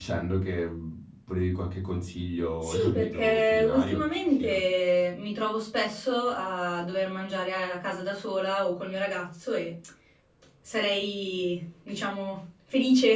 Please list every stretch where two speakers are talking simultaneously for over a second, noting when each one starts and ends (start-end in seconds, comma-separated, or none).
2.6-4.6